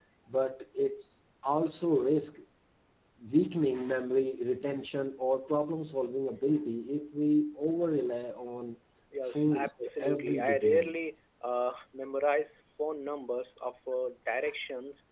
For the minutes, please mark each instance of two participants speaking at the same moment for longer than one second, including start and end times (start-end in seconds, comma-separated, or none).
9.2-10.9